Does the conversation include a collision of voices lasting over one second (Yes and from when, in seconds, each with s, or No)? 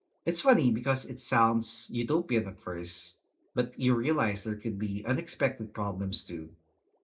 No